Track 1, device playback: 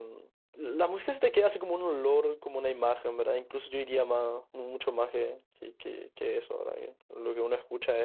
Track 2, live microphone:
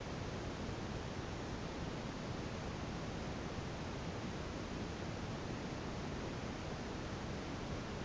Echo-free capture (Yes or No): Yes